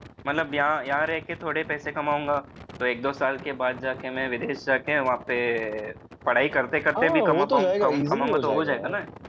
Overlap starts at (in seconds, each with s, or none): 7.0 s